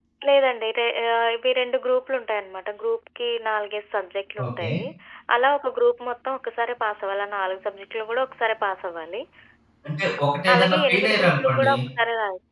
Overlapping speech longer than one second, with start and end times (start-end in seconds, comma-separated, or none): 10.5-11.7